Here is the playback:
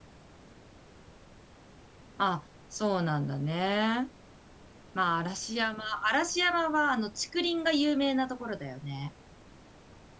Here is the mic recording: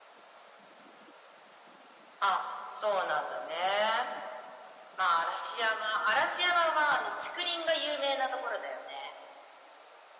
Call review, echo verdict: present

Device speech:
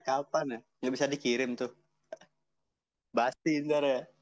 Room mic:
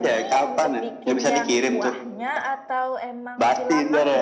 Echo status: present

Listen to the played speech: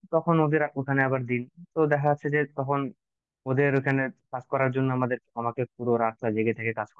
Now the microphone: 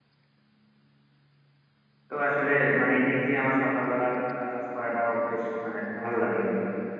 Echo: none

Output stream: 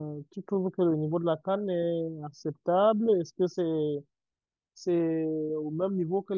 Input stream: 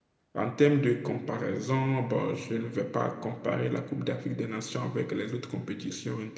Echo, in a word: none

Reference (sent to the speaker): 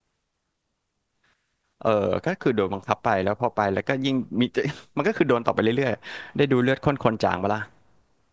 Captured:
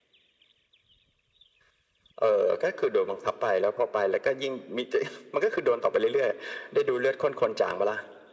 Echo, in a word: present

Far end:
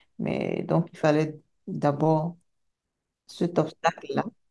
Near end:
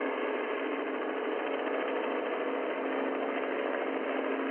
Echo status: none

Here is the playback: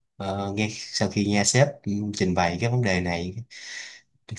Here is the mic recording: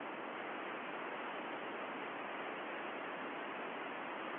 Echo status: none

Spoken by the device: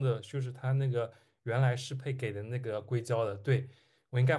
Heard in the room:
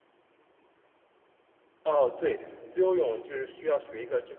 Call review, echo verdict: none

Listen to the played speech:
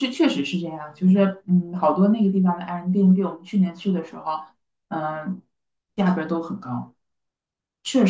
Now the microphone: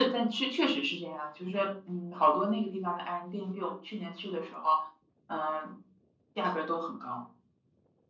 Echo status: present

